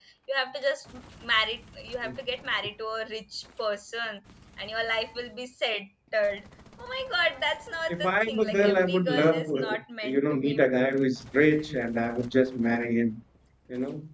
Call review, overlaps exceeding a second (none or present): present